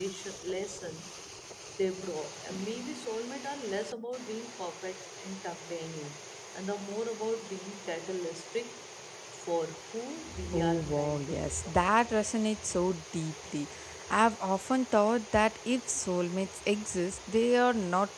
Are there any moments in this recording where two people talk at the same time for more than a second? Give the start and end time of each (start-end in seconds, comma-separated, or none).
10.5-11.8